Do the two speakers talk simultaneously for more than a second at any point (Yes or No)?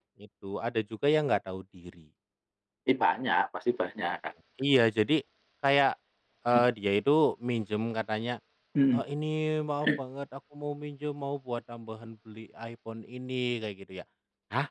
No